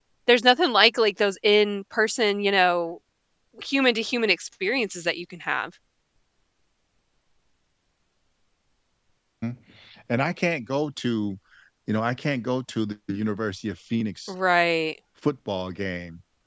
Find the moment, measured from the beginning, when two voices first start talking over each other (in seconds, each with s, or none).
none